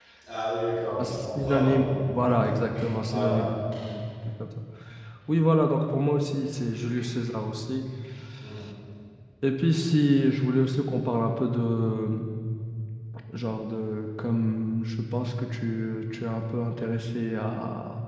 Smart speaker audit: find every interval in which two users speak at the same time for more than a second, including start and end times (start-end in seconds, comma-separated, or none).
1.0-2.2